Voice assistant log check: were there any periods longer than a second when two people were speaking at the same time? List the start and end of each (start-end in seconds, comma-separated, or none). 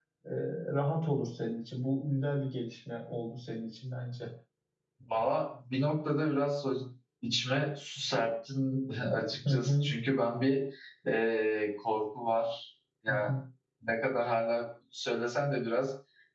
none